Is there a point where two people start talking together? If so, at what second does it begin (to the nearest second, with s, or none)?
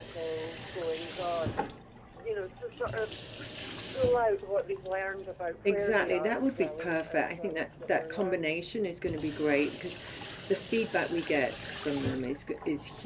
6 s